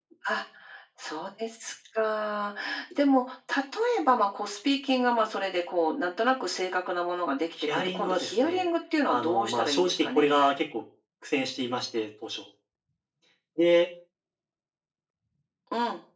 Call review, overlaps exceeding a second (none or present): present